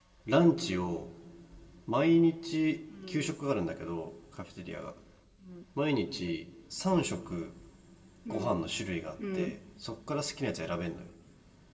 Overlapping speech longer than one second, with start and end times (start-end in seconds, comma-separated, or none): none